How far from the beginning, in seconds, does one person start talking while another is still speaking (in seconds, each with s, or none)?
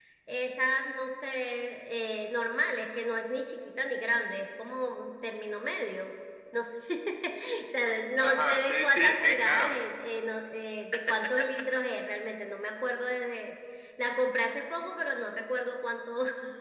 8.2 s